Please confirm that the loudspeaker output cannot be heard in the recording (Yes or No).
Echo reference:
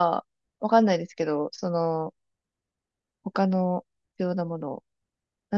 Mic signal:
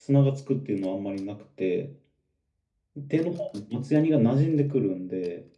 Yes